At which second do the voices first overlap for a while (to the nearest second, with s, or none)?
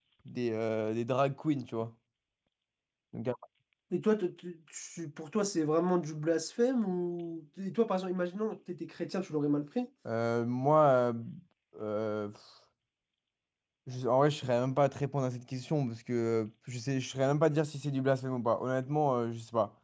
none